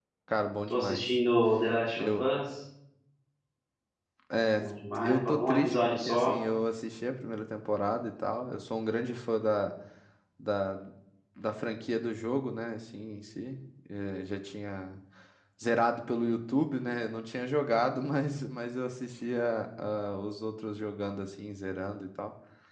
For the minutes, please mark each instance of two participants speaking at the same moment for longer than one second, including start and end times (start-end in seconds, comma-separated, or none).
5.0-6.4